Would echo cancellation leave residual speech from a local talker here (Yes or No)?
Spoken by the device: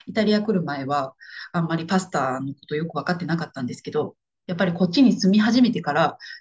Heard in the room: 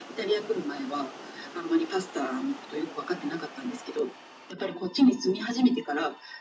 No